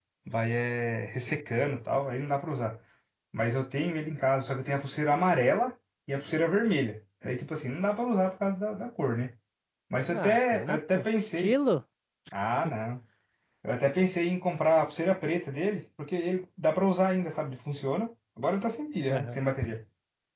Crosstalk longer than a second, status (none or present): present